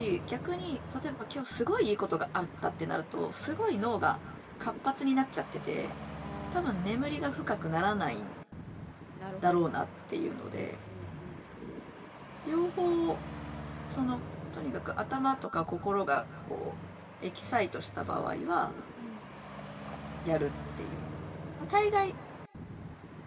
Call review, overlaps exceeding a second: none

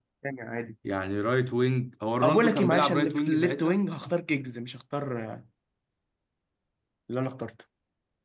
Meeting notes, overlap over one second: present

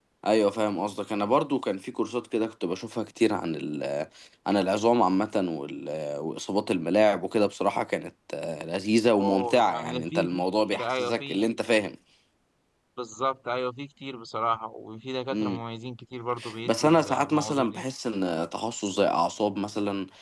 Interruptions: present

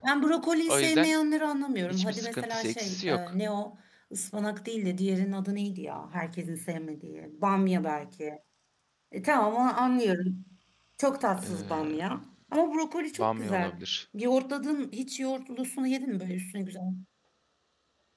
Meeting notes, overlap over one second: present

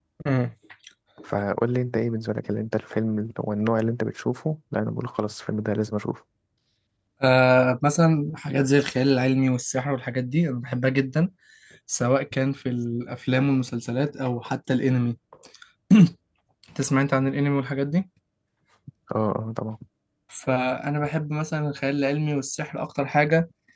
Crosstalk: none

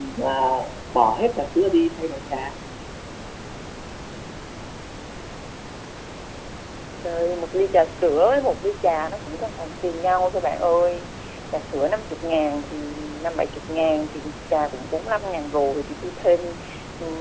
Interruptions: none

